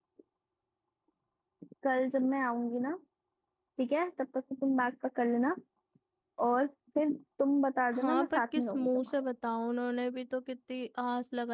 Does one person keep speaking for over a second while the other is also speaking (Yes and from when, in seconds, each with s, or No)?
Yes, from 7.9 s